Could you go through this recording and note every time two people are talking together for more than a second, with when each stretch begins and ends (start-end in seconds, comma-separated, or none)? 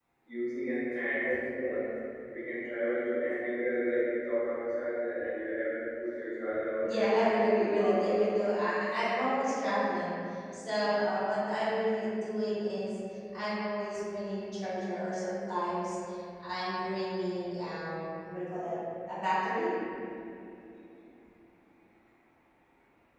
6.8-8.2